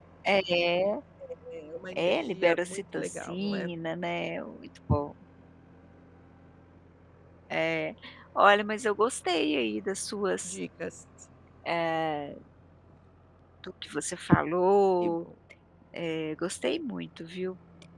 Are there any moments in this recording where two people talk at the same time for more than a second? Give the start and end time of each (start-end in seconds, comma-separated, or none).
1.9-3.7